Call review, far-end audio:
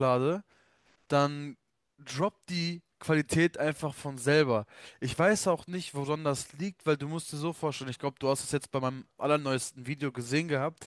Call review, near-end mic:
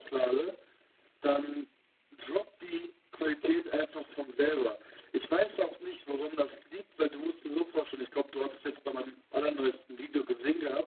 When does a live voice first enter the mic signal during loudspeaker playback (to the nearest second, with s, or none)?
none